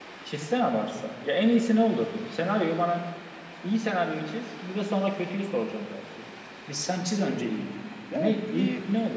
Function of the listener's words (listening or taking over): taking over